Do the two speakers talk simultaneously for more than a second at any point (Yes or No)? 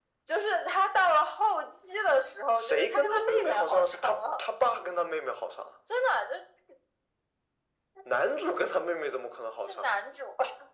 Yes